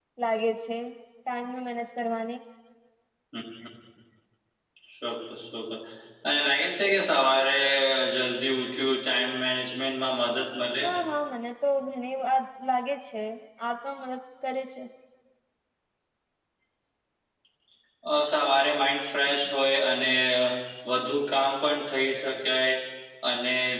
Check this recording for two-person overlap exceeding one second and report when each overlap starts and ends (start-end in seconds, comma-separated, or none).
none